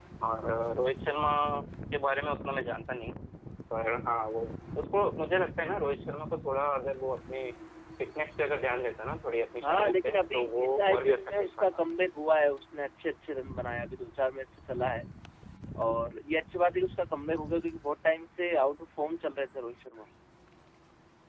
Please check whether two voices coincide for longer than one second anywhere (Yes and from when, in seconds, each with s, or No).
Yes, from 9.6 s